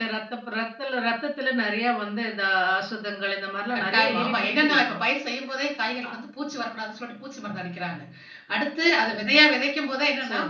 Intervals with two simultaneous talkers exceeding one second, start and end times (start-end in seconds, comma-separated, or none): 3.7-5.0